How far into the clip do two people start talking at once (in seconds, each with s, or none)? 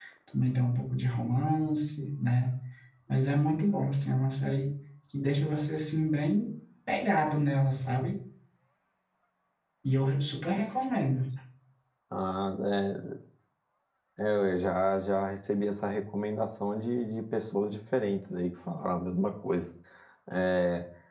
none